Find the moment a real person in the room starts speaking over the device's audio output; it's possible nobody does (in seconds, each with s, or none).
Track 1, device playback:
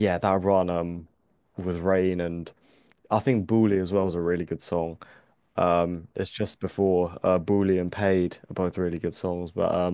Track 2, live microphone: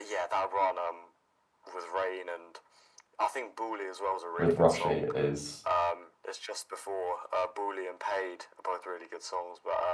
4.4 s